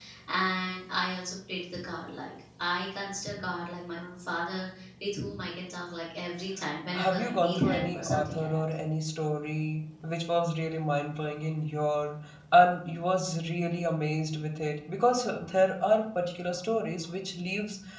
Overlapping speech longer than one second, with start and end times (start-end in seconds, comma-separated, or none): 7.0-8.6